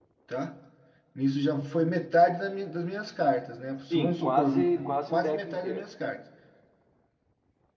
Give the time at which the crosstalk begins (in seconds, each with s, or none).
3.9 s